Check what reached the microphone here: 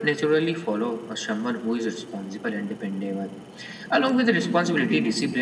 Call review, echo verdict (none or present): present